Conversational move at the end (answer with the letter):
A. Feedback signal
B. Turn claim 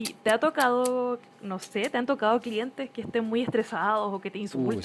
B